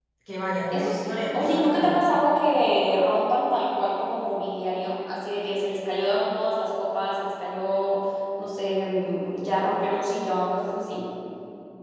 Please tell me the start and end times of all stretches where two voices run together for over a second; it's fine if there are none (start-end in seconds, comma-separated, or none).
0.7-2.0